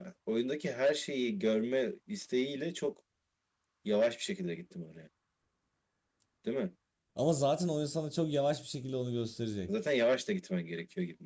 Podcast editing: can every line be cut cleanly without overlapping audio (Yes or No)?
Yes